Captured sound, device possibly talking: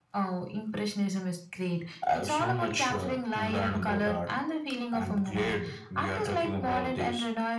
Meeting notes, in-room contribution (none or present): none